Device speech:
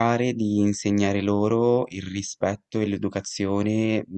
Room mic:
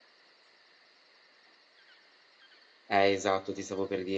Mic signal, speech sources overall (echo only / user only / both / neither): user only